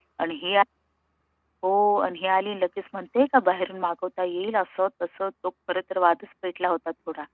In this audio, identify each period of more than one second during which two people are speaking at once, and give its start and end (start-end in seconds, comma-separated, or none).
none